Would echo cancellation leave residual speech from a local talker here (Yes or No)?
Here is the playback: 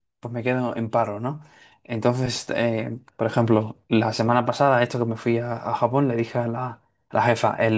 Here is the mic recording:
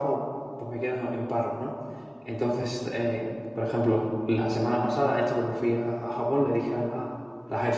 No